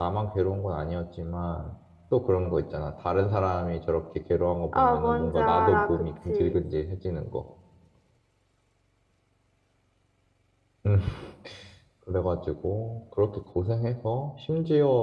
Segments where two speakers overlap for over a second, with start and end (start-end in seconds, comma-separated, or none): 4.7-6.6